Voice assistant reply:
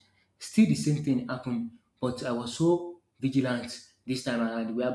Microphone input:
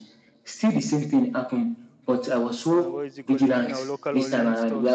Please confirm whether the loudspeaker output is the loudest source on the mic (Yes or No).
Yes